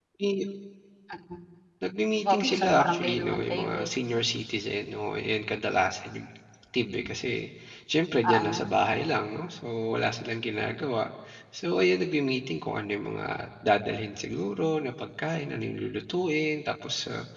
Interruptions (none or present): present